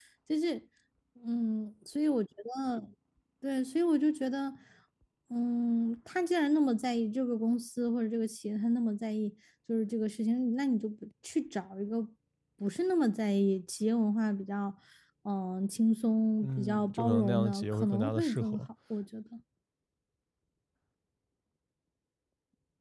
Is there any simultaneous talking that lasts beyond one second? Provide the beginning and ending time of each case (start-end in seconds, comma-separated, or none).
16.4-18.6